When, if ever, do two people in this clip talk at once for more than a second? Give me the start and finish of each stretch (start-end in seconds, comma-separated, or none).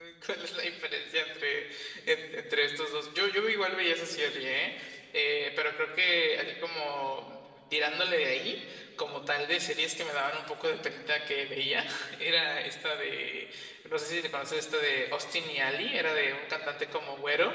none